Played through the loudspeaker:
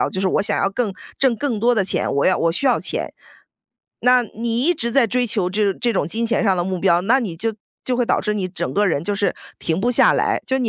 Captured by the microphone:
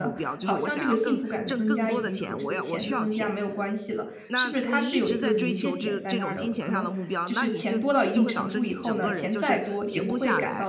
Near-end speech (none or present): present